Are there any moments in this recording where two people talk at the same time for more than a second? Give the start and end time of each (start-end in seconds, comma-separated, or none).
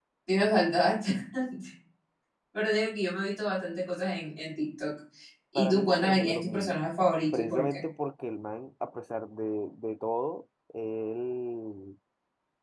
5.5-6.8